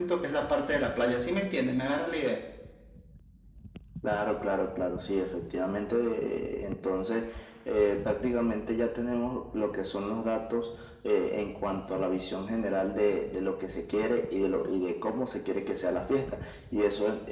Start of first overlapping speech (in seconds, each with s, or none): none